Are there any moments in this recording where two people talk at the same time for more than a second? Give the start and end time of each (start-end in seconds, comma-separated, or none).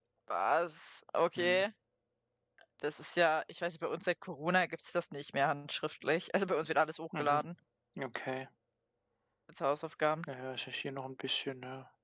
none